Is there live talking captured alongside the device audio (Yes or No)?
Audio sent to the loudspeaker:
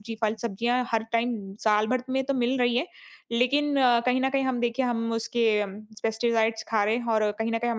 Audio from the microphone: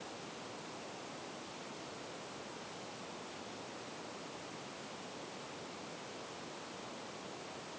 No